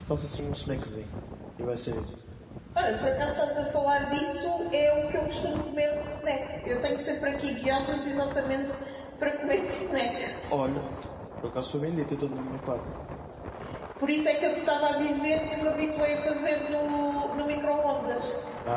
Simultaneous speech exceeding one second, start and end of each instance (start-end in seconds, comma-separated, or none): none